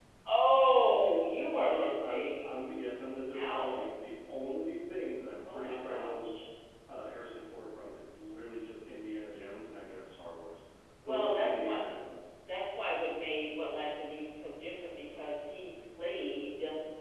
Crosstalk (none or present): present